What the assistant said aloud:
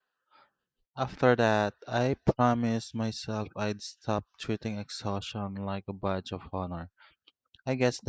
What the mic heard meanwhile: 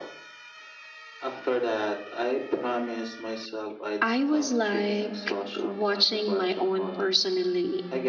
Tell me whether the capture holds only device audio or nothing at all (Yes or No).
No